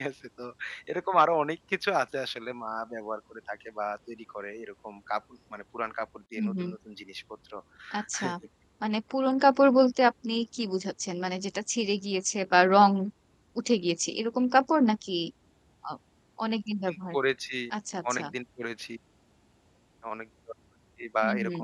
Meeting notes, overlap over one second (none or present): none